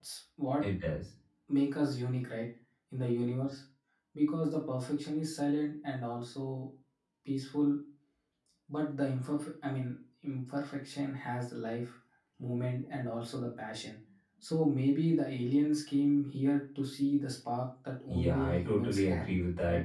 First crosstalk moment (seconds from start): 18.1 s

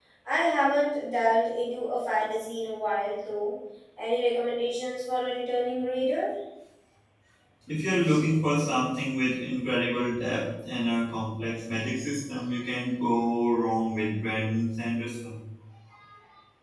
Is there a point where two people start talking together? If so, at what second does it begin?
none

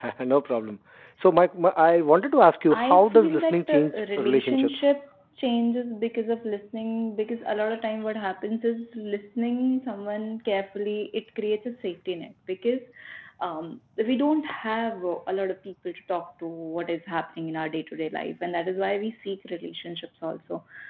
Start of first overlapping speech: 2.7 s

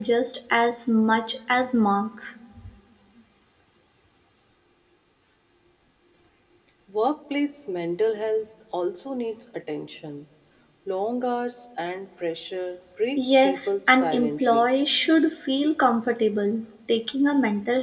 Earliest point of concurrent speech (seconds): 13.2 s

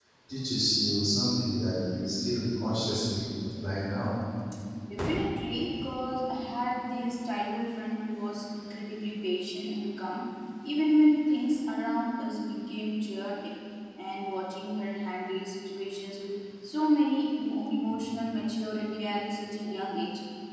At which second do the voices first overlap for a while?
none

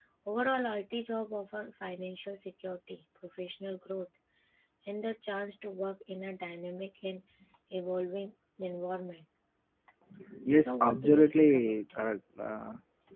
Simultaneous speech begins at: 10.6 s

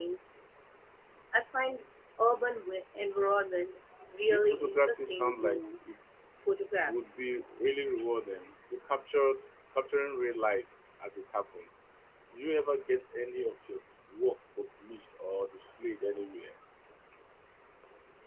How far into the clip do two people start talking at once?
4.3 s

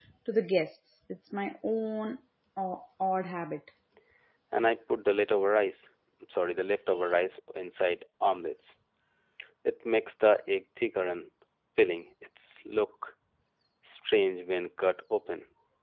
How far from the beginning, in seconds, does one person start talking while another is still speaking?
none

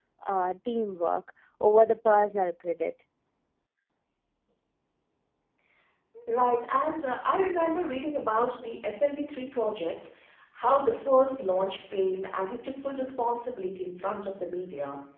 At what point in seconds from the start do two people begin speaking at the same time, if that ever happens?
none

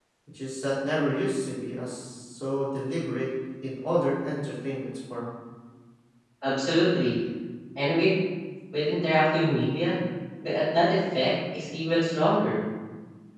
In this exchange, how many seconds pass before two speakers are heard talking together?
none

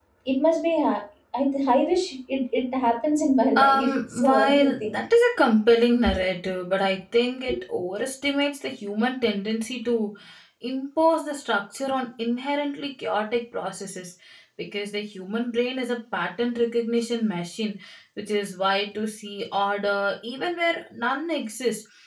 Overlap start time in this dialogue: 3.6 s

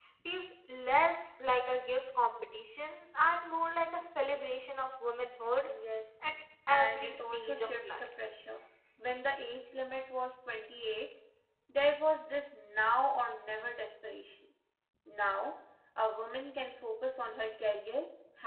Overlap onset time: 6.7 s

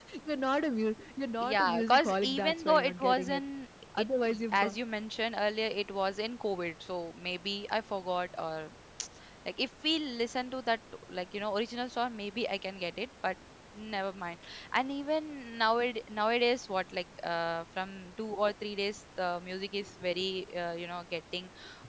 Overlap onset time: 1.4 s

